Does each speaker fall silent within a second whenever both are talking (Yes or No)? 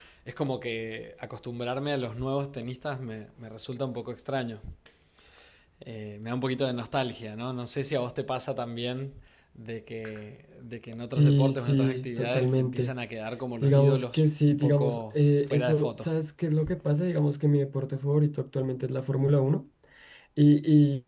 No